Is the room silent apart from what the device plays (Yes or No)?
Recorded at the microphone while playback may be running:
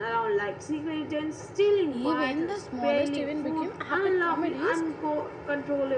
No